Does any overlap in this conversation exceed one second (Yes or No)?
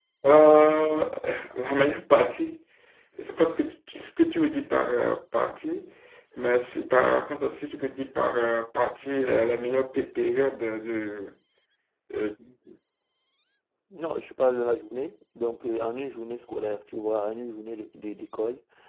No